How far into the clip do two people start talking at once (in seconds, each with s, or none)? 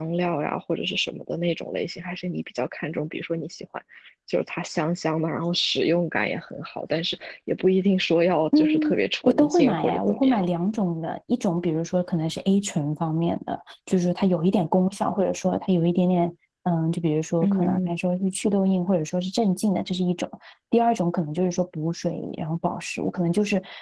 8.6 s